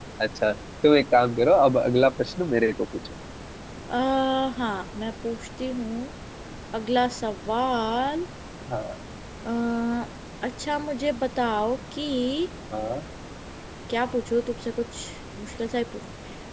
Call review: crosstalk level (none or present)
none